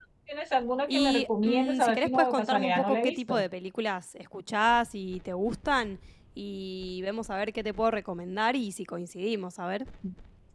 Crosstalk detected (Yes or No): Yes